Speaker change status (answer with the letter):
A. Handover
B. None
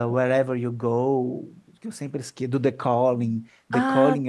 B